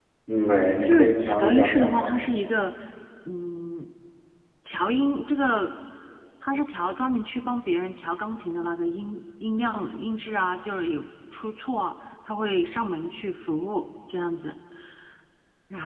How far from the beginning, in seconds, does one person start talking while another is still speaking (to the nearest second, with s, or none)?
1 s